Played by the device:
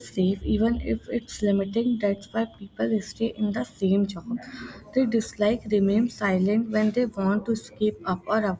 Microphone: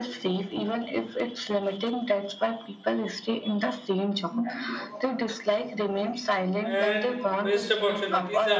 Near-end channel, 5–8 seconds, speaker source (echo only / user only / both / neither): both